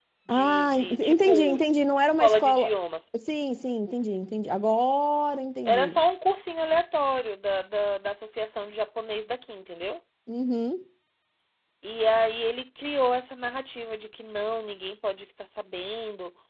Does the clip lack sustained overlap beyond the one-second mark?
No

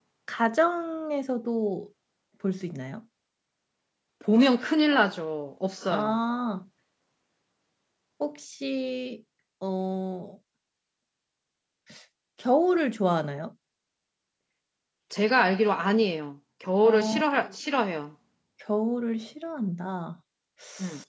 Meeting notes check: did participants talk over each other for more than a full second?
No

